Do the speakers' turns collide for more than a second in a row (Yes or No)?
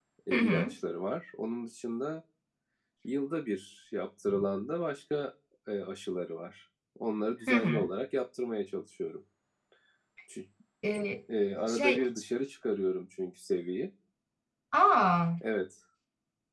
No